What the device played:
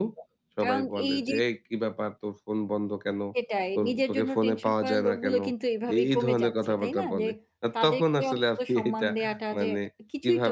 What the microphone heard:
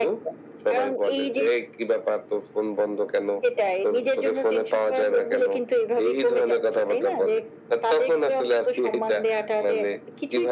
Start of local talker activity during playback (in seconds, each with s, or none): none